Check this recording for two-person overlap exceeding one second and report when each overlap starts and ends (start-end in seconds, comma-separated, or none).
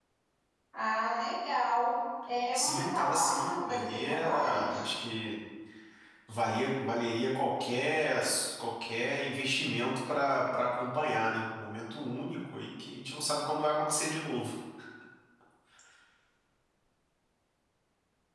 2.5-4.9